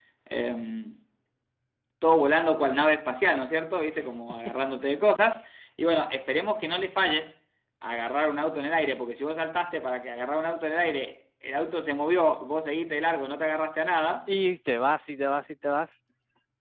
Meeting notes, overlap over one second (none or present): none